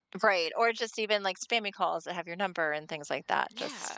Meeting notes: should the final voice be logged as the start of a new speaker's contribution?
Yes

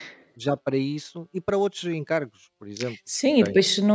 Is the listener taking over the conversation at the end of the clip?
Yes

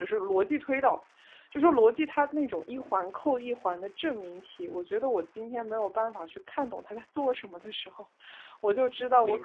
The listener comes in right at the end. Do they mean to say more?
No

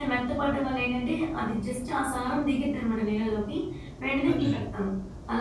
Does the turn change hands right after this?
No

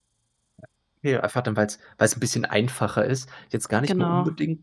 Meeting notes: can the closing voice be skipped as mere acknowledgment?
Yes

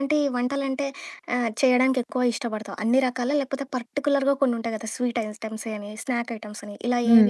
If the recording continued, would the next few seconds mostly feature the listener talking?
Yes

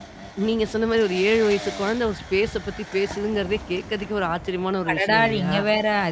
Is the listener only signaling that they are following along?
No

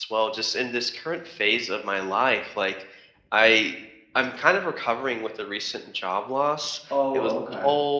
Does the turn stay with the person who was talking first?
Yes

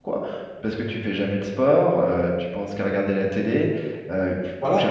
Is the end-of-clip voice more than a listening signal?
No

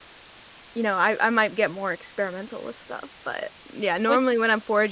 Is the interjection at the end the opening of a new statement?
No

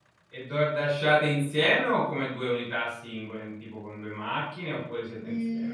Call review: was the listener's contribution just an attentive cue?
No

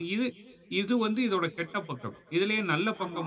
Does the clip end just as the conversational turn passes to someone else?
No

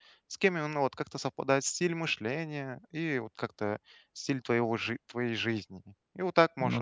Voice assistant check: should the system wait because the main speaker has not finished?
Yes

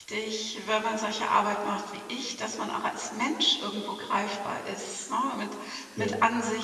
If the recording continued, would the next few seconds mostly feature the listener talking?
No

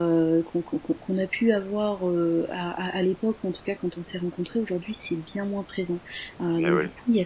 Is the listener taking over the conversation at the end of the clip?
No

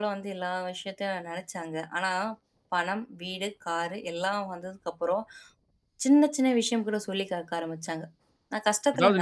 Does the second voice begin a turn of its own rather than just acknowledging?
Yes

